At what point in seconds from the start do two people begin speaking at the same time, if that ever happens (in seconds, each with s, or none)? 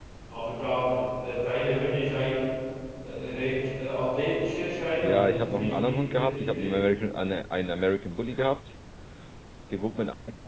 5.0 s